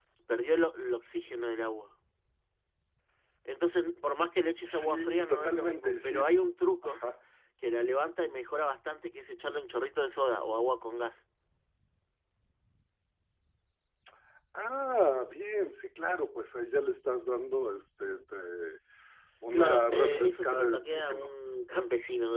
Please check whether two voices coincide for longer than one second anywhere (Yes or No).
Yes